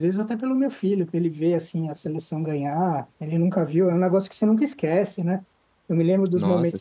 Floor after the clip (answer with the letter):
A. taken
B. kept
B